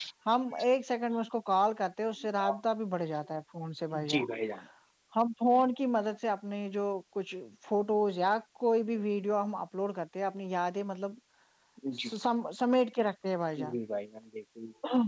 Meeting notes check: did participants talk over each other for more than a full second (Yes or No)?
No